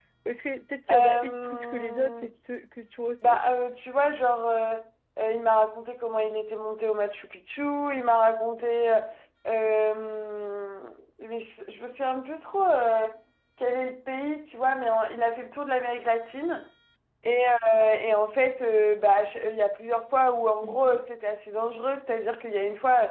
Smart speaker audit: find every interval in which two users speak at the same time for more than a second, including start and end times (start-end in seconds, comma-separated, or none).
0.9-2.3